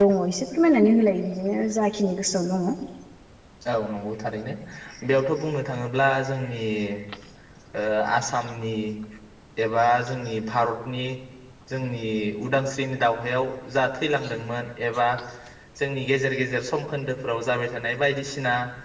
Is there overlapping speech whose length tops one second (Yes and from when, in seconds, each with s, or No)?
No